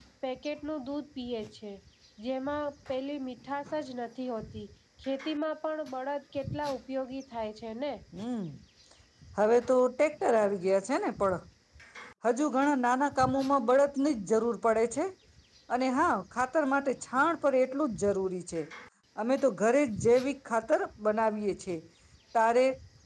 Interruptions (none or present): none